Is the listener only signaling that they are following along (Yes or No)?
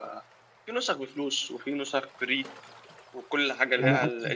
No